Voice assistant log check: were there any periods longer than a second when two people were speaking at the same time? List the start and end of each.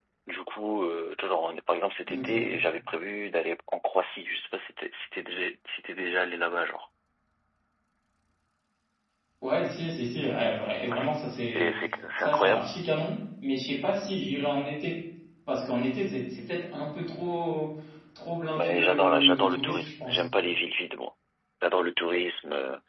18.6-20.2

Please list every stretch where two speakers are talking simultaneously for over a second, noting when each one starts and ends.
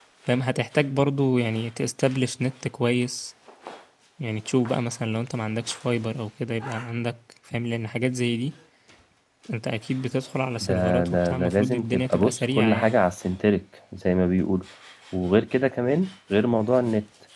10.6-13.0

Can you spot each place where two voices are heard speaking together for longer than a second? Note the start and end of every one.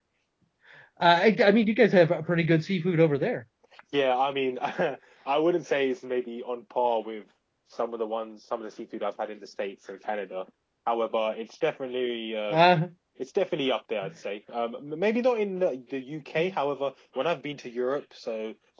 none

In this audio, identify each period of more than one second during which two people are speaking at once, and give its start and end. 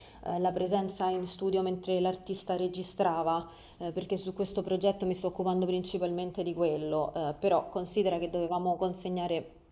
none

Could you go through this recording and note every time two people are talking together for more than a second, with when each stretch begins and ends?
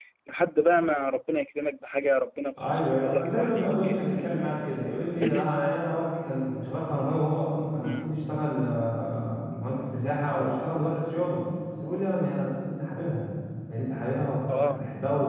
2.6-4.5

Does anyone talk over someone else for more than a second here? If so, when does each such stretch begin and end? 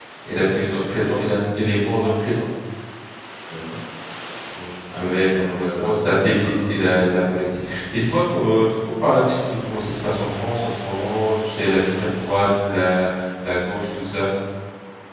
4.9-6.7

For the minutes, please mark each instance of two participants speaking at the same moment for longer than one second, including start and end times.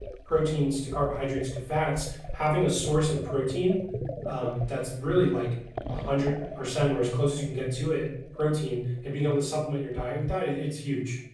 none

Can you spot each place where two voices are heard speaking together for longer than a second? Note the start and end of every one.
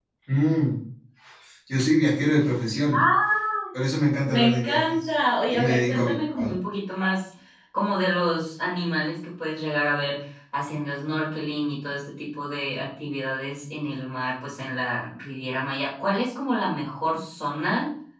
4.3-6.5

